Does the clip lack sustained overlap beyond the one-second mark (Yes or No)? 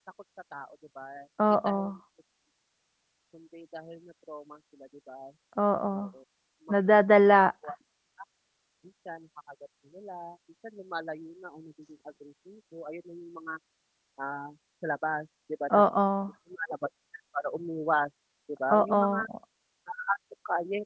Yes